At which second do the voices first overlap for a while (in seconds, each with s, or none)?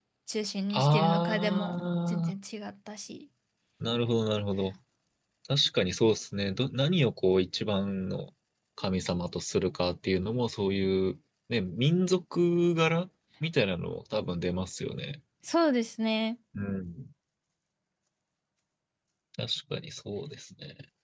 0.7 s